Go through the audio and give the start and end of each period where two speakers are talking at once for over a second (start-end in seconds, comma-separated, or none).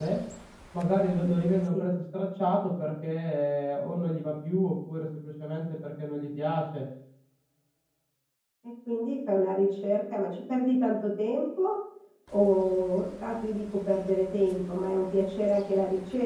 none